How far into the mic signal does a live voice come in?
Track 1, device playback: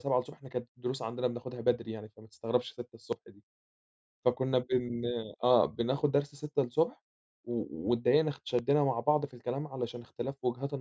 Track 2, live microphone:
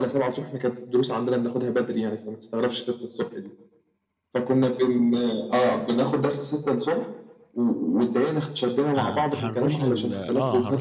9.0 s

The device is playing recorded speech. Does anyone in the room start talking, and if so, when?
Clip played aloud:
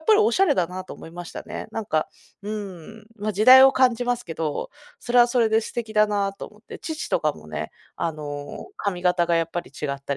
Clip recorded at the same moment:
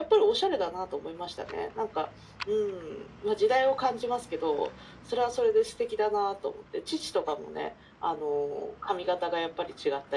none

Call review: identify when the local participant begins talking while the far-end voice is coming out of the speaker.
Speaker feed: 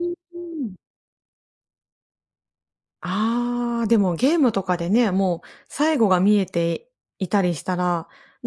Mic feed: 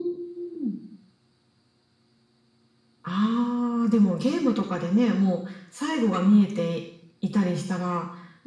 none

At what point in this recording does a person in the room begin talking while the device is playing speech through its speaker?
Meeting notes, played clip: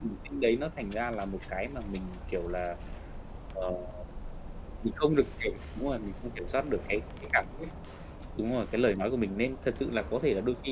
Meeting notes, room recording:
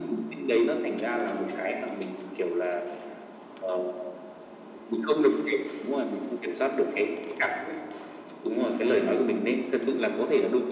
none

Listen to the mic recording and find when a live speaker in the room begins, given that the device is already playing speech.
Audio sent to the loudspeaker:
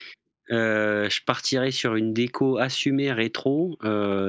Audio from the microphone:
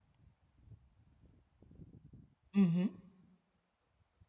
2.5 s

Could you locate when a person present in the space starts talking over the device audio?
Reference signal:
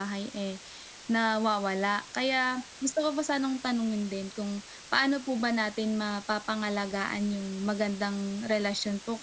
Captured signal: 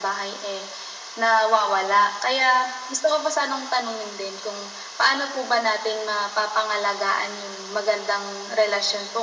none

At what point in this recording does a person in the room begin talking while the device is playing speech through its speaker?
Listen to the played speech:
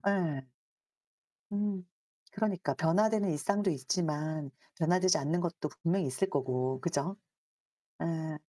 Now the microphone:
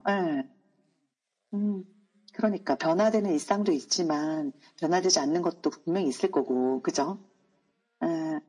none

